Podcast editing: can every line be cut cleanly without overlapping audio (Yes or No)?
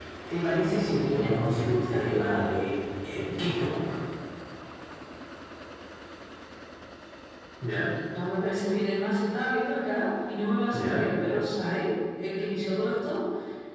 No